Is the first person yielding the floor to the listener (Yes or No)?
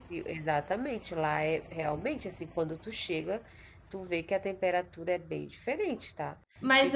Yes